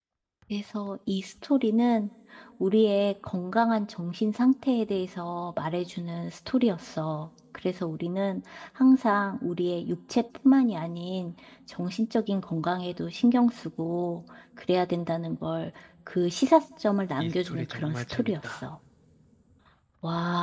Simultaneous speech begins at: 17.2 s

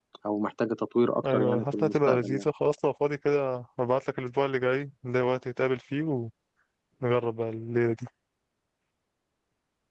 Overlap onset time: 1.2 s

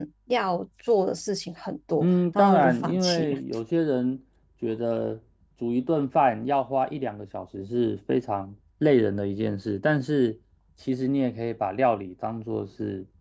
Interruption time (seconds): 2.0 s

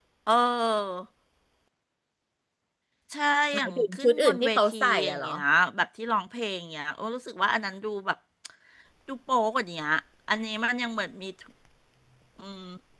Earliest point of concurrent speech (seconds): 3.5 s

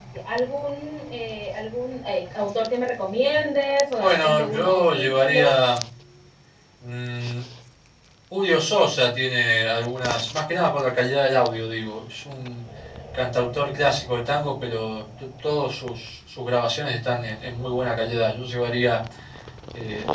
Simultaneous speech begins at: 4.0 s

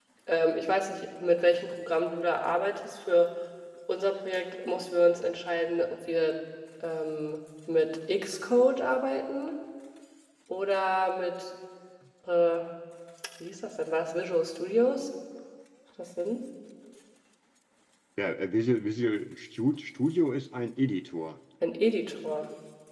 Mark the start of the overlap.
none

